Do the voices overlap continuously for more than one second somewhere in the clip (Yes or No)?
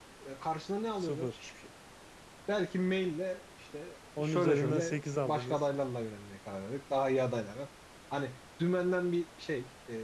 Yes